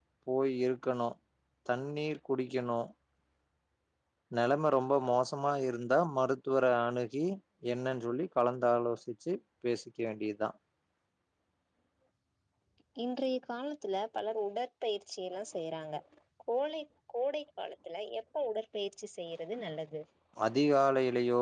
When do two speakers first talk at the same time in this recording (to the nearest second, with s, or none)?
none